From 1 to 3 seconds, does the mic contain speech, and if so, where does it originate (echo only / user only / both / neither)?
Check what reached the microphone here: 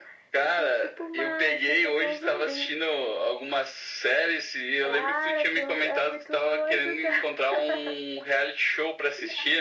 echo only